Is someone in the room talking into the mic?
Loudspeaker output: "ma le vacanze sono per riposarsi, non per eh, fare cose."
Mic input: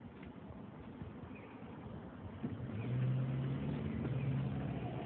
No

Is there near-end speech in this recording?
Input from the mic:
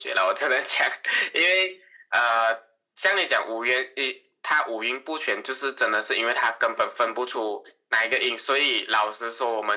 No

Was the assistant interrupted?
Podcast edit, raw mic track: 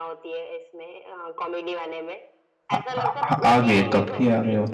Yes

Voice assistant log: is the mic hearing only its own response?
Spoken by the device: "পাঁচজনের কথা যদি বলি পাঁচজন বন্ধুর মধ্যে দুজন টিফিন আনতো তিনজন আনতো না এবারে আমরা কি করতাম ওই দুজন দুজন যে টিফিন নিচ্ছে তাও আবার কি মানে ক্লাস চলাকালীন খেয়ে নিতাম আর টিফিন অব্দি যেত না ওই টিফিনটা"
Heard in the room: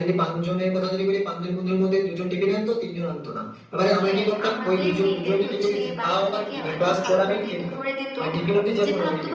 No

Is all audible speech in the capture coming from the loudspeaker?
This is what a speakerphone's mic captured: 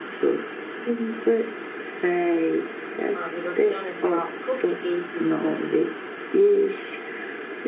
No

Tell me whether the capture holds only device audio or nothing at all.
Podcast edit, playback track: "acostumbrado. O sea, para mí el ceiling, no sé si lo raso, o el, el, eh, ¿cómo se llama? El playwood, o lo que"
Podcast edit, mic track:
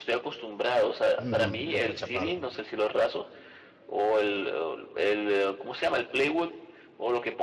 No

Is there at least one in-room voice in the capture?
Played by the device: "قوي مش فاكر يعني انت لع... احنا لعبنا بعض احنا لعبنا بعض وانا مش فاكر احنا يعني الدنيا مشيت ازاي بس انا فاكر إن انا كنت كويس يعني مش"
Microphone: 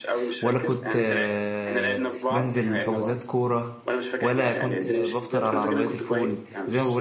Yes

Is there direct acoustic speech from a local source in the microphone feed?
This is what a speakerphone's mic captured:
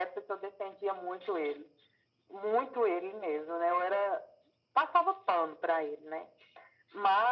No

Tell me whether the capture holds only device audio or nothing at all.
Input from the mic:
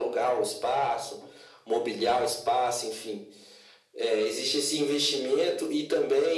Yes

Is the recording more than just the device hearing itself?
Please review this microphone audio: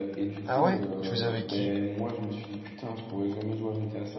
Yes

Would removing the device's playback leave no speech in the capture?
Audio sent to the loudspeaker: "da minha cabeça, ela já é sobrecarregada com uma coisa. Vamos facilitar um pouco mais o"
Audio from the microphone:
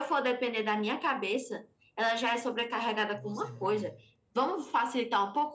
No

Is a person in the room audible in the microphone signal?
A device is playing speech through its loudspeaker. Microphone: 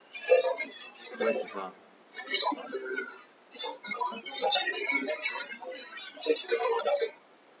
Yes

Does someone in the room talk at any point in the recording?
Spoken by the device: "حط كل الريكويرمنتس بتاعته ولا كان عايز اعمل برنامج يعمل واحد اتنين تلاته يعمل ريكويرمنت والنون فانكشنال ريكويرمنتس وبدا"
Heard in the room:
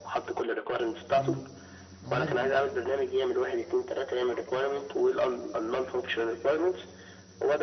Yes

